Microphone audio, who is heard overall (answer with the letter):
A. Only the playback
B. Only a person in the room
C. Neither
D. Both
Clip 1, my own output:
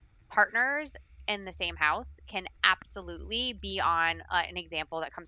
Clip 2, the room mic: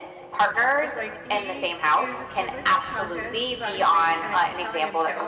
D